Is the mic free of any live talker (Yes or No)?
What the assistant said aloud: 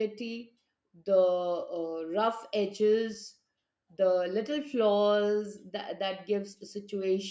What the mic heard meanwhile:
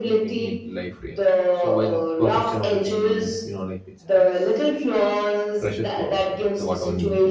No